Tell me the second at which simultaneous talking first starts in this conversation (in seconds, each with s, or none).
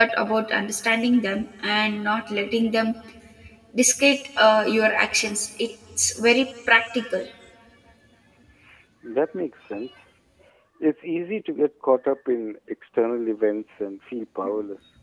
none